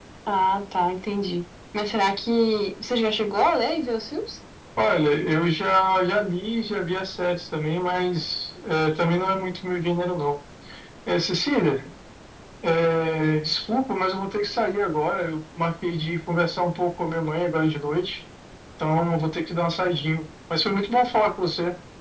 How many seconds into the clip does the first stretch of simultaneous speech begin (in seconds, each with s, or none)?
none